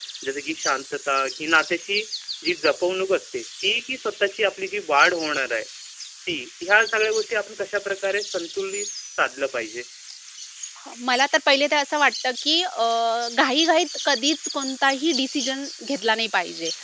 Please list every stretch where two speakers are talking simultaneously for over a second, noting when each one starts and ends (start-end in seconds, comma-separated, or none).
none